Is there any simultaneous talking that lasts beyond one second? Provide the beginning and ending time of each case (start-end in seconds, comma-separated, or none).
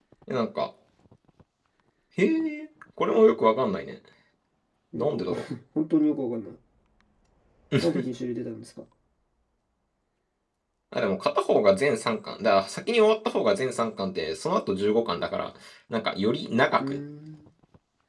none